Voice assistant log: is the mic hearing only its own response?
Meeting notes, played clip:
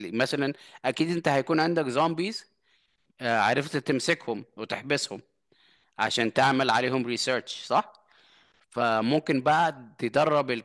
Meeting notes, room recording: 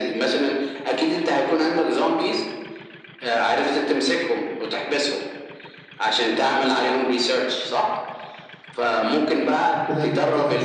No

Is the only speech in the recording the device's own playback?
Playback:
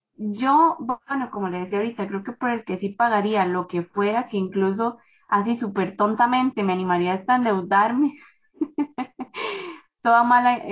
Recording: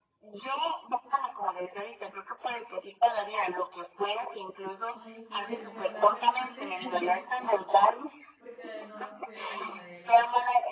No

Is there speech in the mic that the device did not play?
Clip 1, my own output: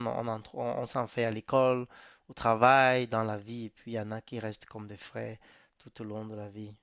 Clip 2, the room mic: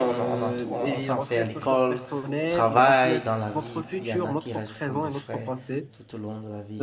Yes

